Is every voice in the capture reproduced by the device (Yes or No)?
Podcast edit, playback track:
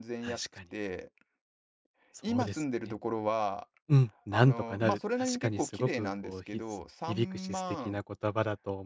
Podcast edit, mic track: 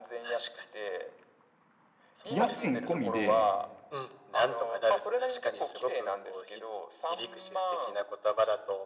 No